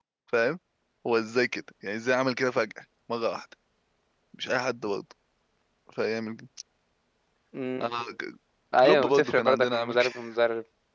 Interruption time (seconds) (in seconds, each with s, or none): 8.8 s